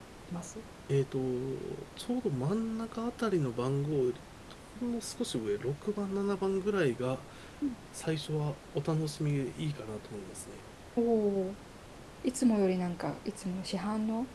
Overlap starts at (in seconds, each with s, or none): none